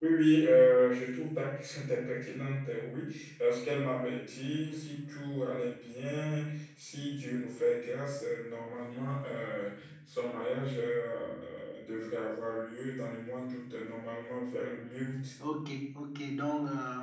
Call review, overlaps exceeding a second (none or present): none